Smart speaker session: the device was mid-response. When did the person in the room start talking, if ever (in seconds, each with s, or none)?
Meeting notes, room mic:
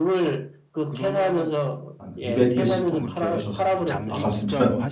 2.0 s